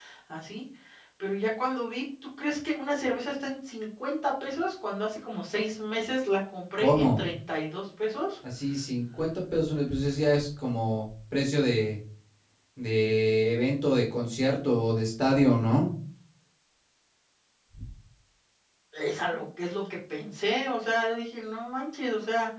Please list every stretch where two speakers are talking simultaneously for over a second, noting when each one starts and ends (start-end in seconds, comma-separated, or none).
none